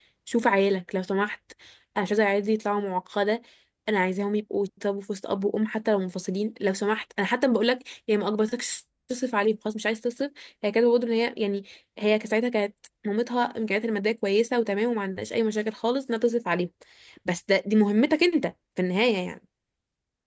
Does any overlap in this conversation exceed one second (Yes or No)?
No